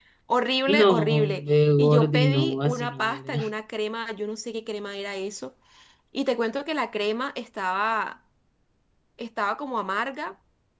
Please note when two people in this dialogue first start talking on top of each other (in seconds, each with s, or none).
0.7 s